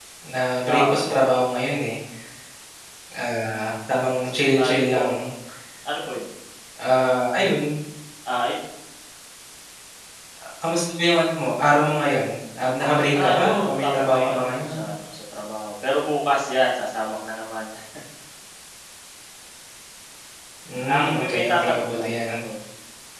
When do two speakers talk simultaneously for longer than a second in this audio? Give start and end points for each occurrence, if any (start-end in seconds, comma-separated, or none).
13.2-14.9, 20.9-22.3